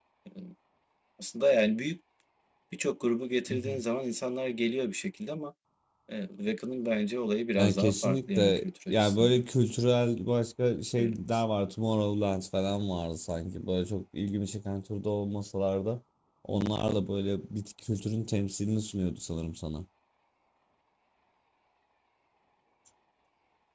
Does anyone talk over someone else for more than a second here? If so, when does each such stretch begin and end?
7.6-9.4

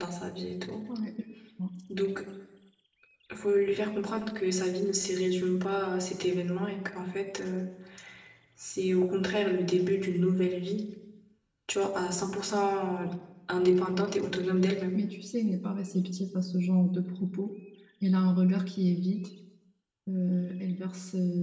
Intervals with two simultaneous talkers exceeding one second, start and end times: none

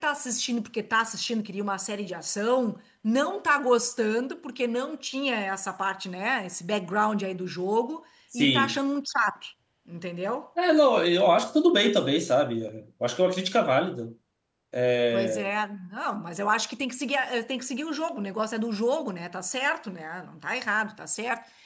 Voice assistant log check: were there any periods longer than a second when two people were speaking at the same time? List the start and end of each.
none

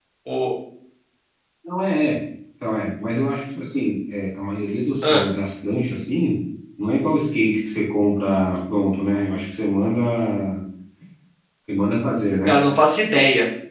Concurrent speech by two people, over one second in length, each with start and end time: none

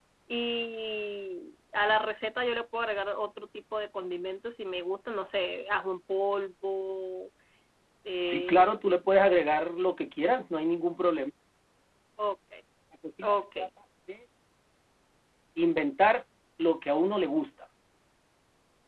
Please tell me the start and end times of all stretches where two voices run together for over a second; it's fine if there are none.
none

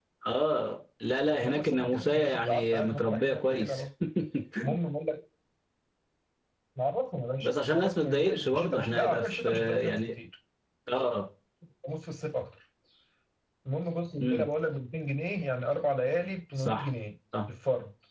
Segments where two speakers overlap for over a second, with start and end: 1.4-3.8, 7.4-10.1

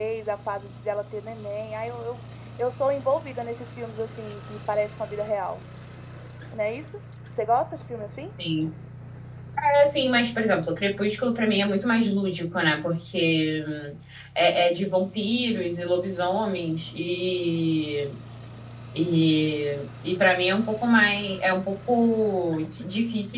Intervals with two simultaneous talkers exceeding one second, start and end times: none

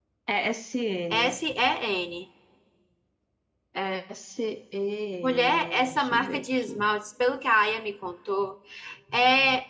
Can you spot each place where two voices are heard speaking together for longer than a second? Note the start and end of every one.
5.2-6.8

